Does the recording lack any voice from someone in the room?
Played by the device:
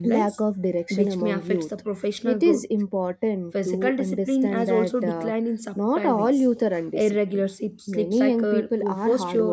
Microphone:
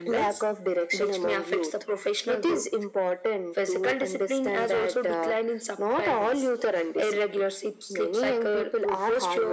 Yes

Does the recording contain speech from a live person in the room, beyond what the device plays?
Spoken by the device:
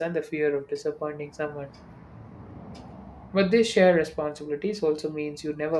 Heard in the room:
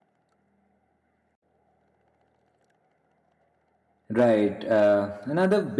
Yes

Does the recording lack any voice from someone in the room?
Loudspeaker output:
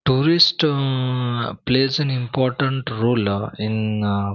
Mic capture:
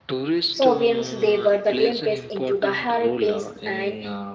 No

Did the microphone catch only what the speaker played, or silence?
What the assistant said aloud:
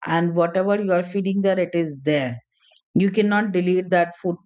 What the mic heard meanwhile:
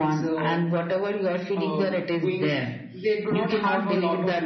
No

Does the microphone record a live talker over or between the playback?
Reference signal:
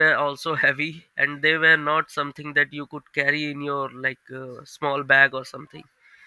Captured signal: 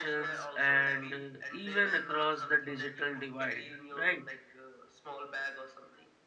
Yes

